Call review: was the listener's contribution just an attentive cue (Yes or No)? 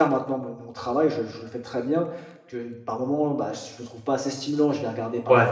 Yes